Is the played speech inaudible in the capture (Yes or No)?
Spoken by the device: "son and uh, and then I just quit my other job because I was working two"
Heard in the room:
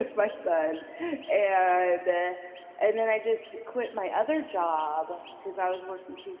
No